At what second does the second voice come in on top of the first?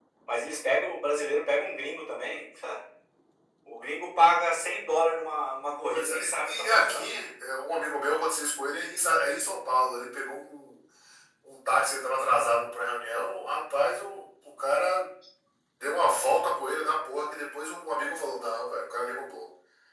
5.9 s

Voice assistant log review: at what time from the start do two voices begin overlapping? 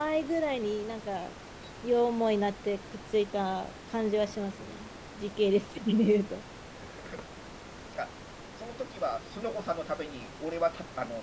none

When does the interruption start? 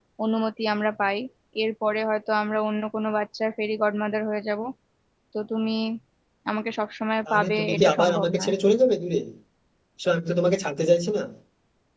7.3 s

